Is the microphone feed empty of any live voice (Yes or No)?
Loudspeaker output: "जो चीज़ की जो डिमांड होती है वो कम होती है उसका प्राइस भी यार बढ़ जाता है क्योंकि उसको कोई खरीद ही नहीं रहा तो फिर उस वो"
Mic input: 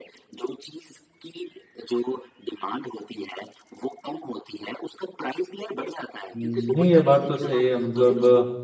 No